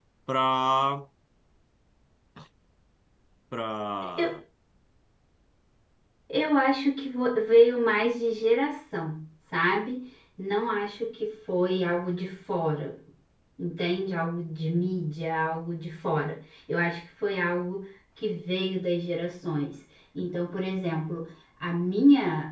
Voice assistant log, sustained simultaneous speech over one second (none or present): none